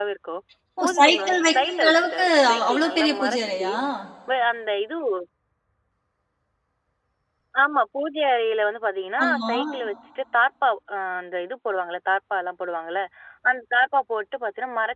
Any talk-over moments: Yes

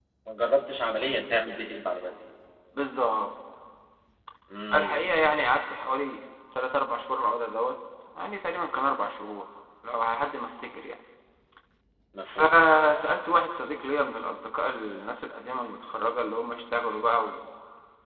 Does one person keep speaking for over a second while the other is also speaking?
No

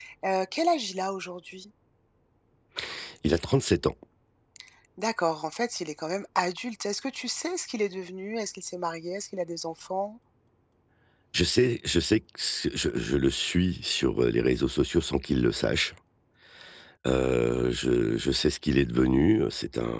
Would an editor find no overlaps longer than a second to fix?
Yes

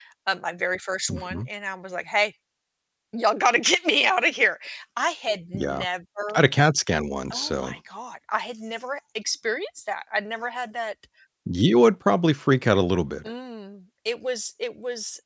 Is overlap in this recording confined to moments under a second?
Yes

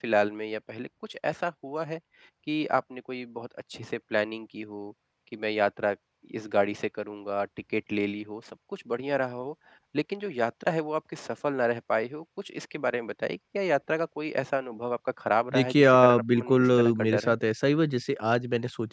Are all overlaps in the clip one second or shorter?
No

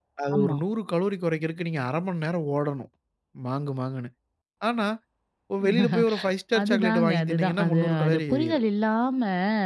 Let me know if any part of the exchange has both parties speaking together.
Yes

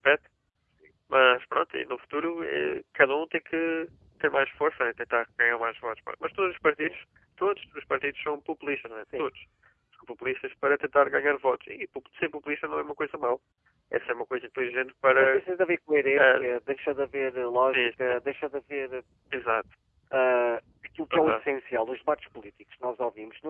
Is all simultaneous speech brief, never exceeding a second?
Yes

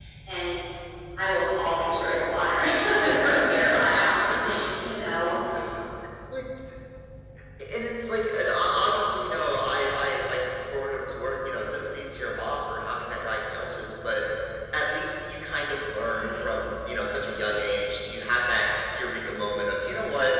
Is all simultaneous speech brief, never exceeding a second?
Yes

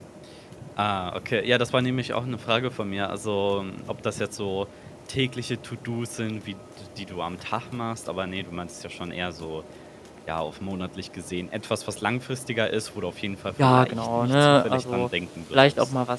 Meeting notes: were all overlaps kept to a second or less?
No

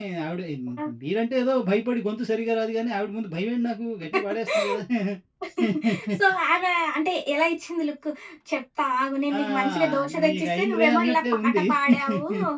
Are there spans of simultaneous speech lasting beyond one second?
Yes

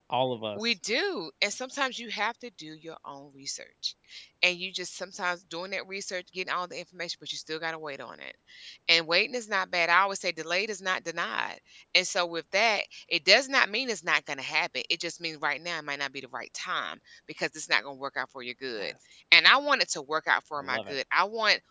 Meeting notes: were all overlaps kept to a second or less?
Yes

